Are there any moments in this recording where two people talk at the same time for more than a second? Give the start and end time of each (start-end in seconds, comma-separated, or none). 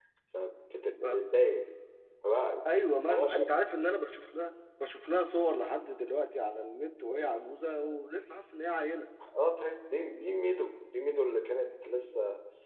none